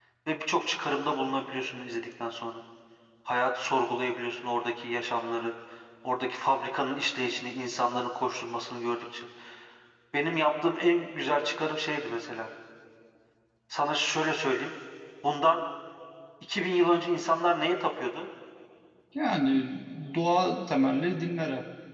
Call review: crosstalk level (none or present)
none